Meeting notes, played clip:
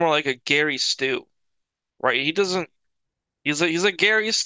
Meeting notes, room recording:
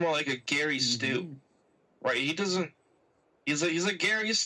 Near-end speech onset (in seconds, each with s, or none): 0.8 s